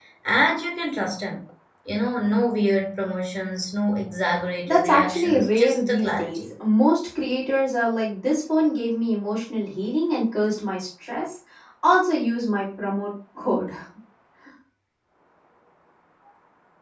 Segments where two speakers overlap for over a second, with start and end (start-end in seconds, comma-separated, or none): 4.7-6.4